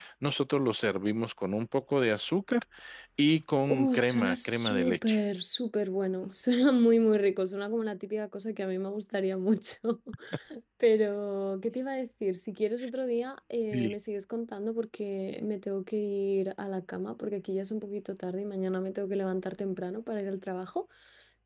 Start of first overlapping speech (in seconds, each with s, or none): 3.7 s